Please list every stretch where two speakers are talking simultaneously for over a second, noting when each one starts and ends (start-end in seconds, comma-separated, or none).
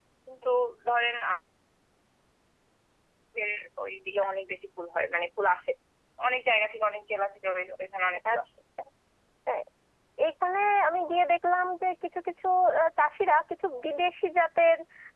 none